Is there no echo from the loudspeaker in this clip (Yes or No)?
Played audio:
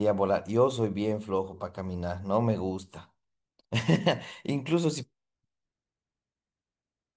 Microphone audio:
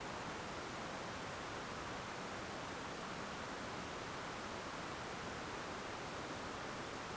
Yes